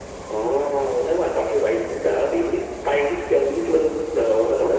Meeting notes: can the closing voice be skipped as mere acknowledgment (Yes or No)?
No